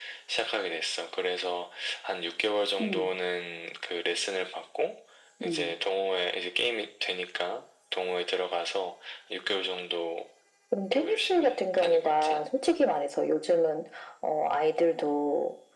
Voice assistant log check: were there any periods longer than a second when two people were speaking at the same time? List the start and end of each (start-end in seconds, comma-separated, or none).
10.9-12.4